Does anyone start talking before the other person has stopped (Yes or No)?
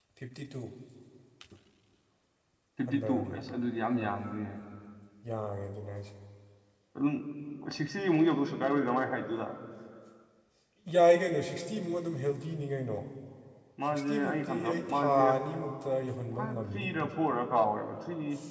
Yes